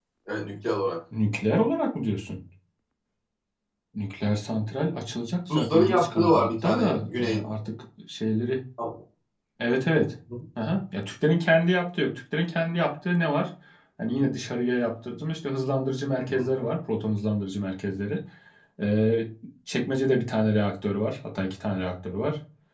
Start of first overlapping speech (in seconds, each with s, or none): 5.5 s